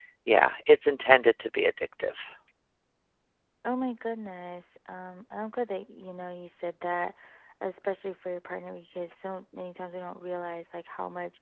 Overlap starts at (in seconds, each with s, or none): none